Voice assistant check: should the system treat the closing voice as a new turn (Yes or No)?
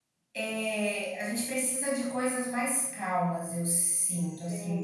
Yes